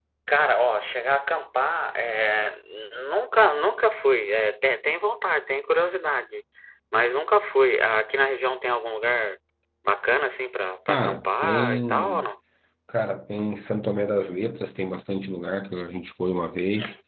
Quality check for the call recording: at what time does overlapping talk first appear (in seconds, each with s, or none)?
10.9 s